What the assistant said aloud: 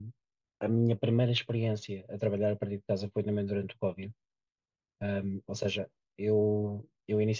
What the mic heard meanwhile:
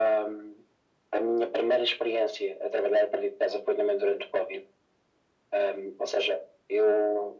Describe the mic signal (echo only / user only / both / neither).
echo only